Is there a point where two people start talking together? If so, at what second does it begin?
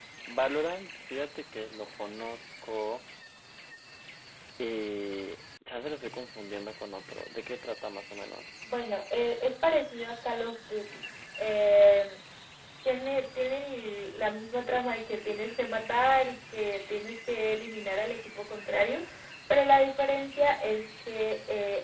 none

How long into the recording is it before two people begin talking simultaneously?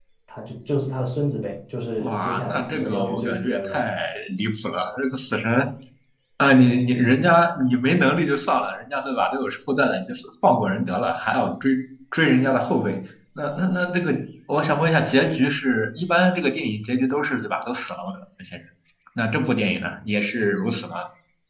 2 s

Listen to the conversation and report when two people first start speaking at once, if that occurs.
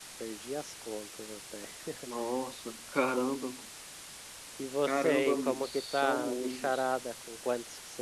5 s

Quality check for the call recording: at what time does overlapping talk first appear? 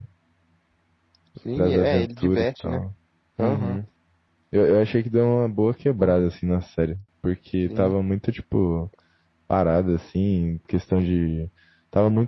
2 s

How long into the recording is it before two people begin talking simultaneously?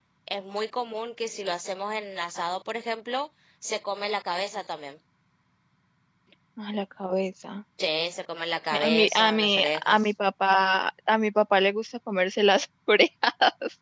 9 s

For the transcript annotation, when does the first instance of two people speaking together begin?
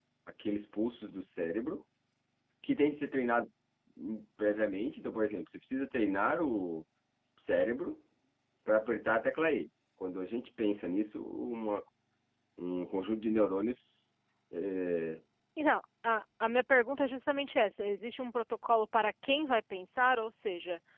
none

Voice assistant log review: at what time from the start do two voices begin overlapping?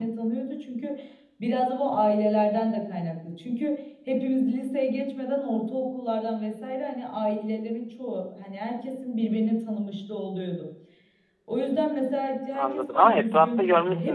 13 s

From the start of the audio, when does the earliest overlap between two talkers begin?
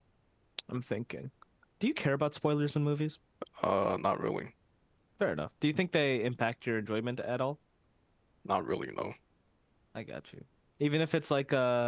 none

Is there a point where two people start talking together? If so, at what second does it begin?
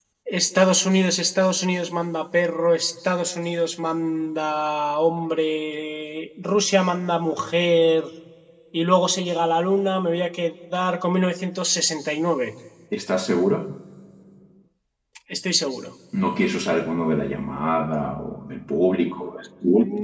none

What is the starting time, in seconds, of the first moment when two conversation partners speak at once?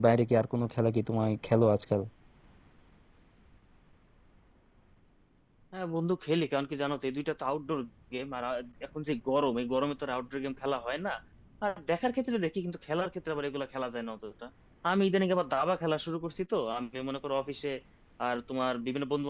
none

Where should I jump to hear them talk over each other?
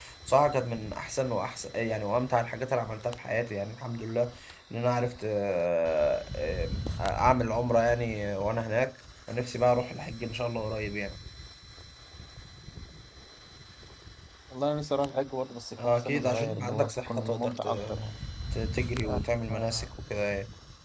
16 s

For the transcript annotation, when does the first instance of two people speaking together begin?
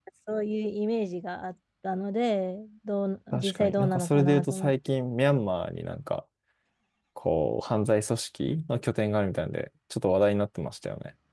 3 s

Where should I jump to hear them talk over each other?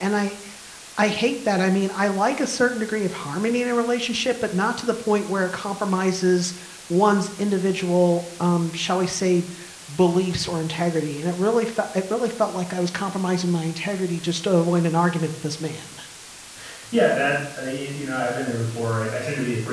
none

